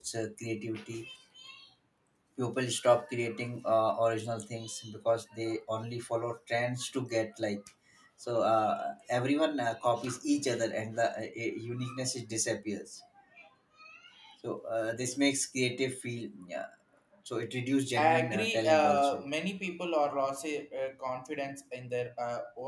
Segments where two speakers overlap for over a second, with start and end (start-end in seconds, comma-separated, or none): 18.0-19.2